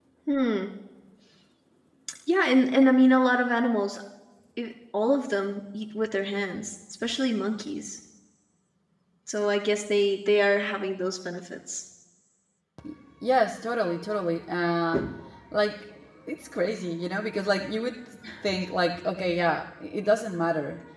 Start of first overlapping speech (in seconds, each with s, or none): none